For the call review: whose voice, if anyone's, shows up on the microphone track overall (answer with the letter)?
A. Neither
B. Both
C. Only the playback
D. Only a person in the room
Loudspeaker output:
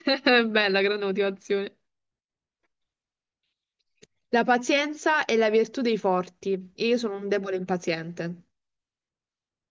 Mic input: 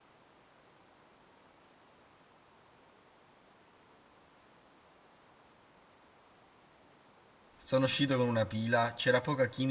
D